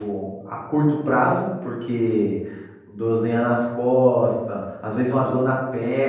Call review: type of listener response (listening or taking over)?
listening